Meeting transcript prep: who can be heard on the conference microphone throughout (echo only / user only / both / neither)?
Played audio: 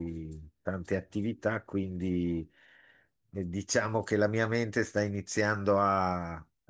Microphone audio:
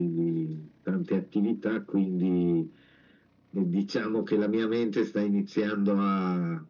echo only